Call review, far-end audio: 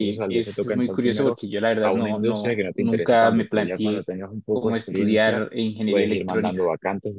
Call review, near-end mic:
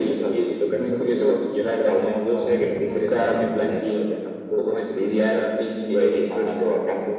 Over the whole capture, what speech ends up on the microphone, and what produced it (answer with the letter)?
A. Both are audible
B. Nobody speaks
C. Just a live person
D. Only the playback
A